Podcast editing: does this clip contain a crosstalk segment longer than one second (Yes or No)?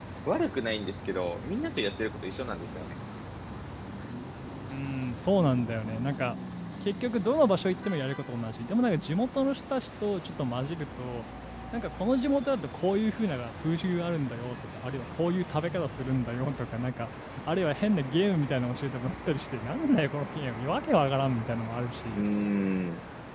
No